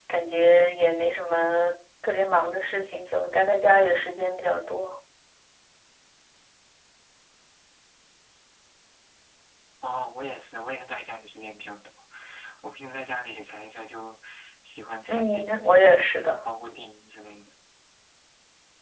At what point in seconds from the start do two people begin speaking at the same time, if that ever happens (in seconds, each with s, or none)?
15.1 s